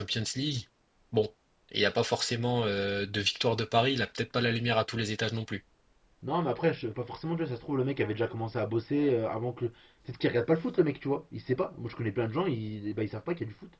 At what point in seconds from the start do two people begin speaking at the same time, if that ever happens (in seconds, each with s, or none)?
none